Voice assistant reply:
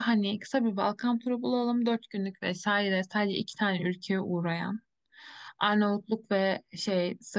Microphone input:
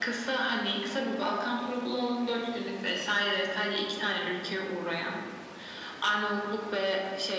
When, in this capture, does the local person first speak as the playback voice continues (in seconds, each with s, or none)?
none